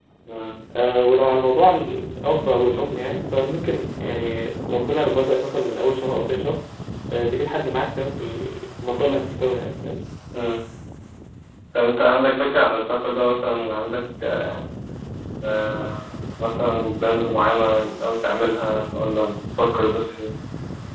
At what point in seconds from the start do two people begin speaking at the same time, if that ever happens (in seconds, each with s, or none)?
none